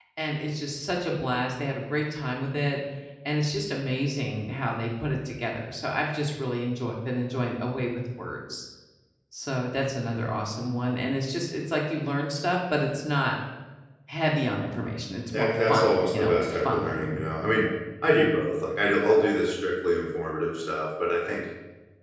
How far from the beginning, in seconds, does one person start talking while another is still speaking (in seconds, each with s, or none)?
15.3 s